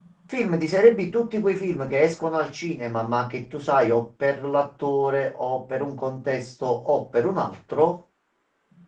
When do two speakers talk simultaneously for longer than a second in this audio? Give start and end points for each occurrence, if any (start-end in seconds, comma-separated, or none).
none